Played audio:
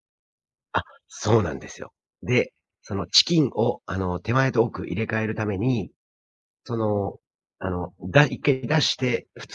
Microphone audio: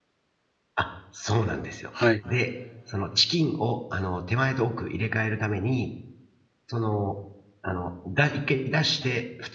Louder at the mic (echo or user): user